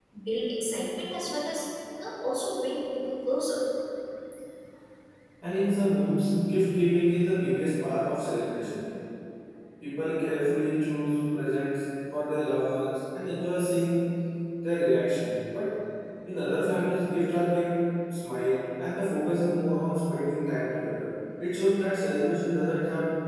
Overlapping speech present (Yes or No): No